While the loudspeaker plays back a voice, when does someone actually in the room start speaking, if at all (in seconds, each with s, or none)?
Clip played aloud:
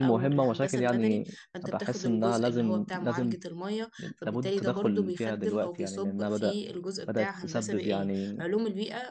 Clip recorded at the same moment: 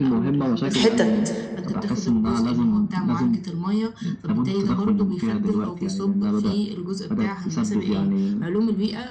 0.7 s